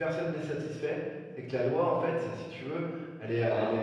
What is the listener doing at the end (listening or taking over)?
listening